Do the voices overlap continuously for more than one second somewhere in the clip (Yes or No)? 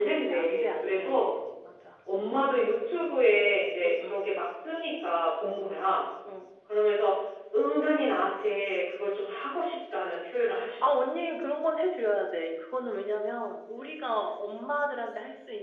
Yes